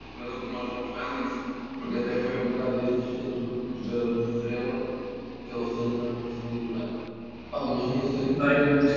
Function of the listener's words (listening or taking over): listening